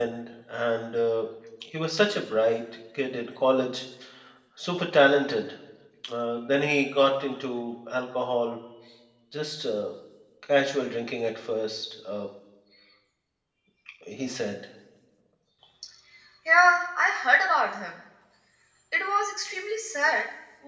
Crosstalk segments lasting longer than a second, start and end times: none

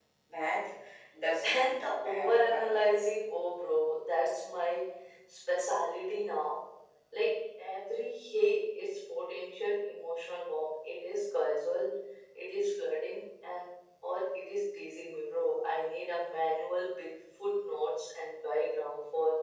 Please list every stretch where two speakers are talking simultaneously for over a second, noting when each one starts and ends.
1.4-2.9

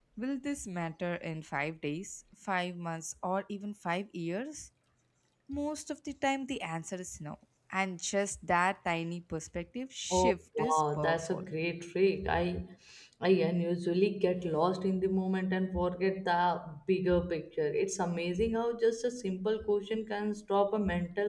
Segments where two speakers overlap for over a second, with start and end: 10.1-11.4

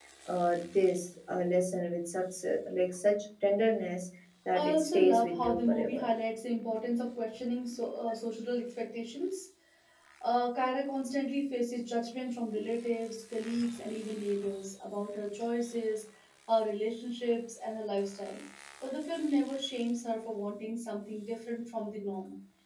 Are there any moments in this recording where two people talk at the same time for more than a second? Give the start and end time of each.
4.5-6.1

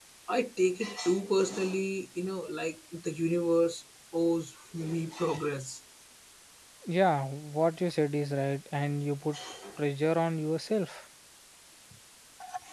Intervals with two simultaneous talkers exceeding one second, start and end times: none

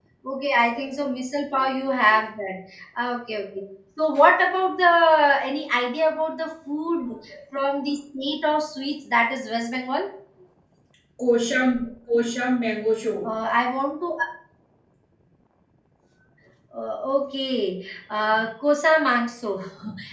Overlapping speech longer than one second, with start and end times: none

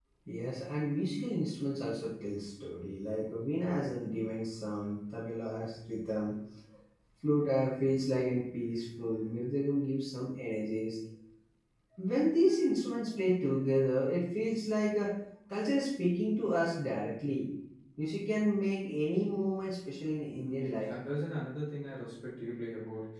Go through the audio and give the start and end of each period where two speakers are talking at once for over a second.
none

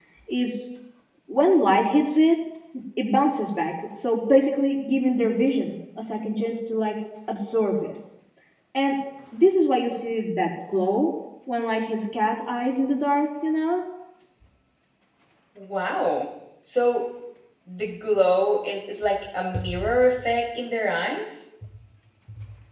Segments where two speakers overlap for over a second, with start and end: none

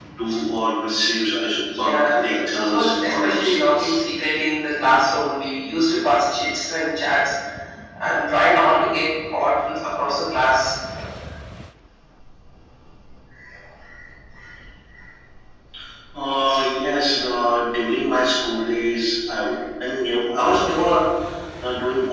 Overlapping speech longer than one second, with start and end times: 1.8-4.0

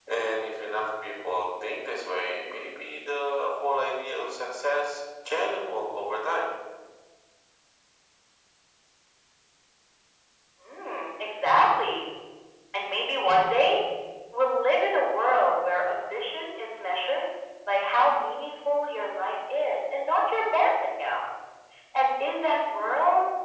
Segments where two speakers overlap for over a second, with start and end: none

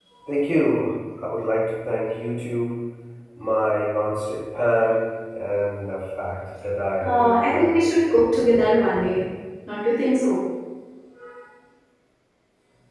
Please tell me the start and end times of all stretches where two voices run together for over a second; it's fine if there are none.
7.0-8.2

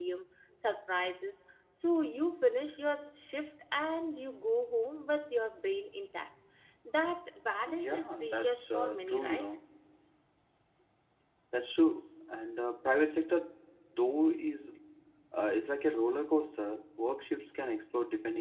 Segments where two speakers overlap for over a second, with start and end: 7.8-9.5

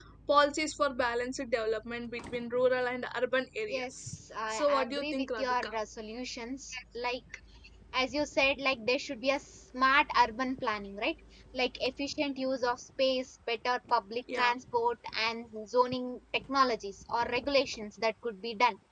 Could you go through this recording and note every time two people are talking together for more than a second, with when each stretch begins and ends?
4.5-5.7

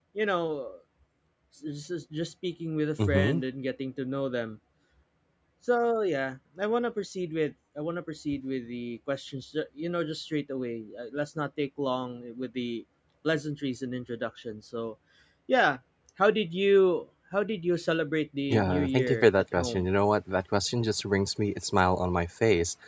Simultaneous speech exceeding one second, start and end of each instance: 18.5-19.9

